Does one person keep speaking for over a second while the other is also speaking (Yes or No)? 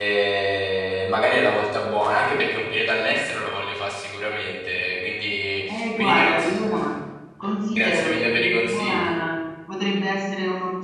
Yes